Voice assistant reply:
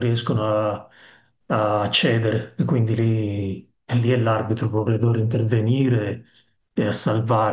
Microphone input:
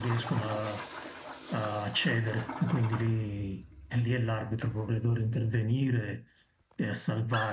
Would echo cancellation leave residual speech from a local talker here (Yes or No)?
No